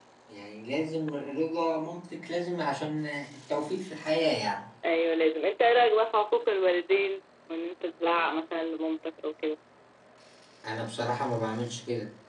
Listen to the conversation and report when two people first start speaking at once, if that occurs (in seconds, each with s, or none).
none